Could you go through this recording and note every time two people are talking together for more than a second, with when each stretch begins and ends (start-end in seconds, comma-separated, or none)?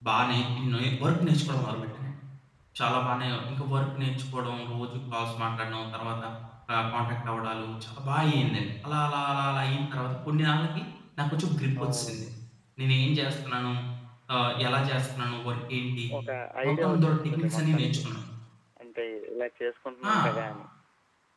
16.7-18.0